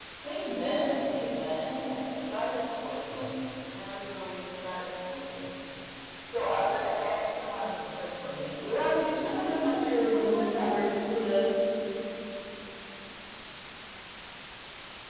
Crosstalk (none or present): present